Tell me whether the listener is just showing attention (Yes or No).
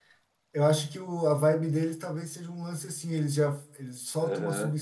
Yes